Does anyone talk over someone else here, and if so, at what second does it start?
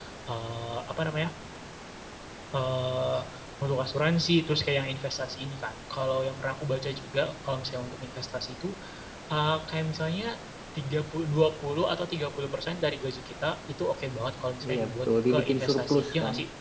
14.6 s

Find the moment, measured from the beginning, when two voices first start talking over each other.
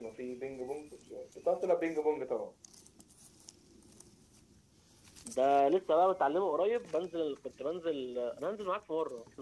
none

